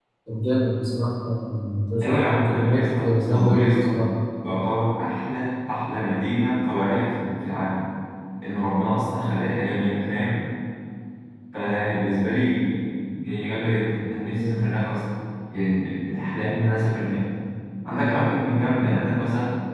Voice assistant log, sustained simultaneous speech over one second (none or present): present